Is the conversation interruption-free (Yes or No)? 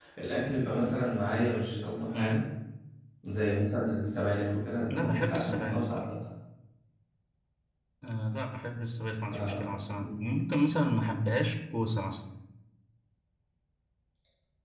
No